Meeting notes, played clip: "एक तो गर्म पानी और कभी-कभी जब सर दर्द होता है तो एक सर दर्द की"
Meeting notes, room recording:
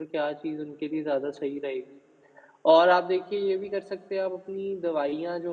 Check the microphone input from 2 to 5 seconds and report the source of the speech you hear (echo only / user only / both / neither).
user only